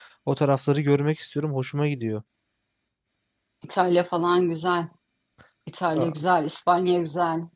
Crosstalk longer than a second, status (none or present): none